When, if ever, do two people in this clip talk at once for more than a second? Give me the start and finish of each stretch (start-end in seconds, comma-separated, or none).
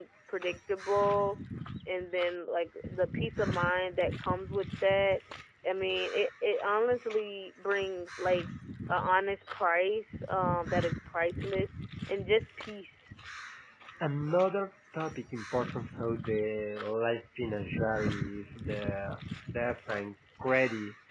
none